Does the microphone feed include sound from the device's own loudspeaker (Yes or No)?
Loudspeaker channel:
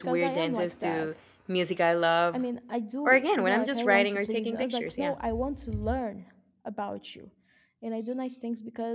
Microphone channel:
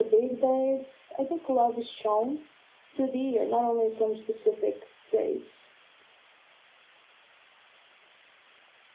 No